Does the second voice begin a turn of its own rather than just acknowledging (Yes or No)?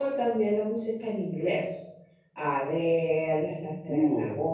No